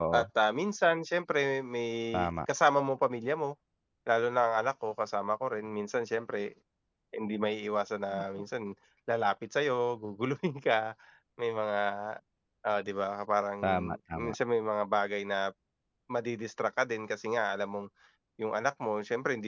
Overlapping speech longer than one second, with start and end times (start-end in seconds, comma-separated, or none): none